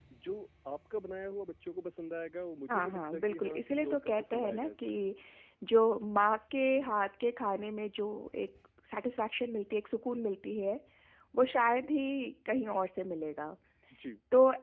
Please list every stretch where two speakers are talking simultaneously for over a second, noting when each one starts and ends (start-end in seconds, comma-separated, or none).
2.7-5.0